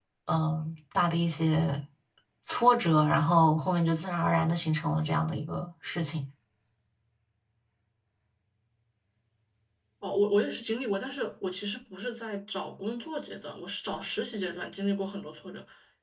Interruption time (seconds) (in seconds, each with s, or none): none